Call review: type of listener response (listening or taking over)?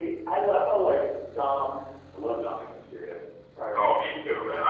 taking over